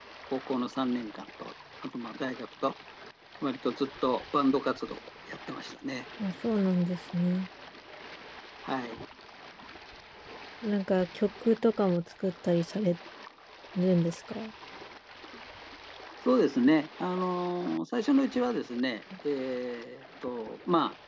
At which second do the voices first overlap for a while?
none

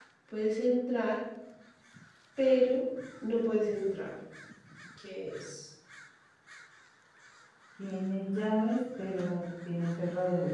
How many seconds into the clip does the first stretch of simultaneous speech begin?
none

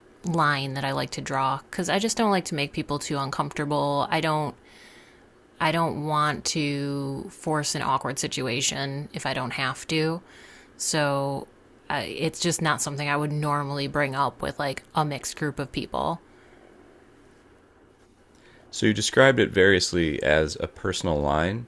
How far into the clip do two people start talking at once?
none

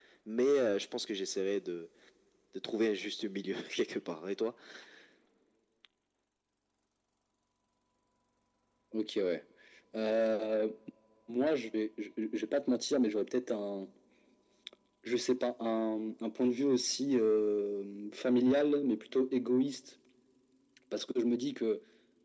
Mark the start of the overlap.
none

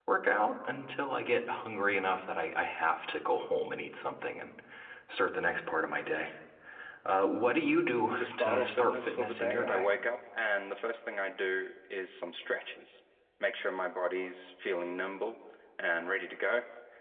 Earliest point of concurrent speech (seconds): 8.2 s

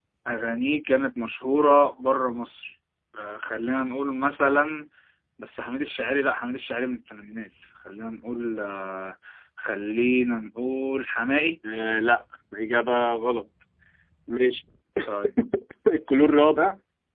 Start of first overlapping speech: none

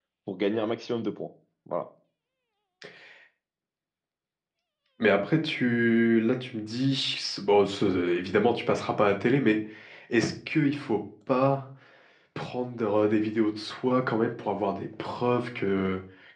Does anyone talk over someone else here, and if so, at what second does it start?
none

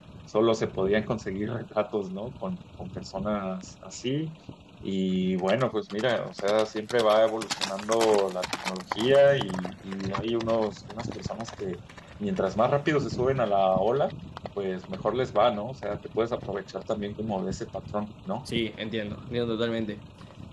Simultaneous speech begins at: none

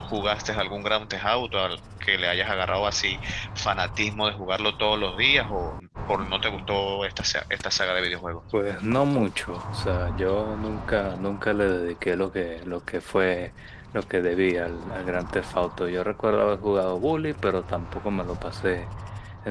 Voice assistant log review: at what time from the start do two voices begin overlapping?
none

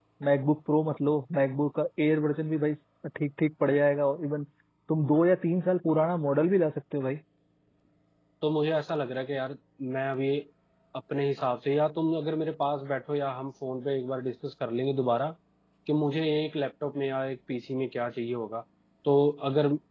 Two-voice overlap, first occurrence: none

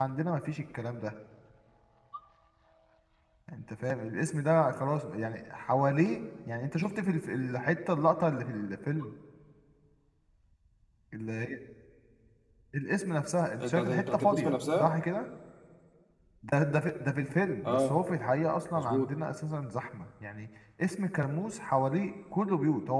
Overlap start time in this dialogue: 13.6 s

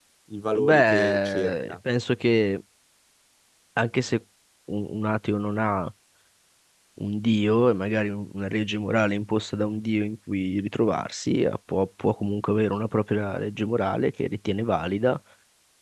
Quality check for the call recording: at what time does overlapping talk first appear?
0.6 s

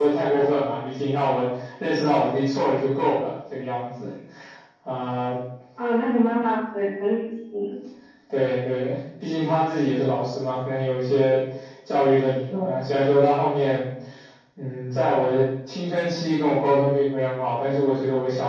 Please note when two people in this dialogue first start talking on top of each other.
none

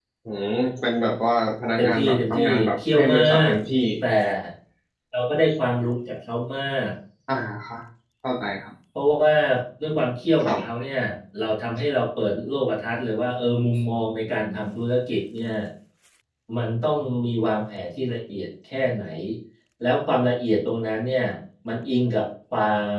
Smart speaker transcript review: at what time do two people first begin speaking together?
1.8 s

